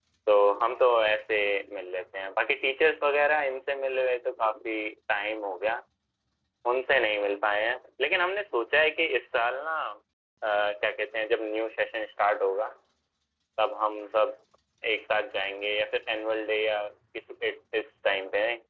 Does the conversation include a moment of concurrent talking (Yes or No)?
No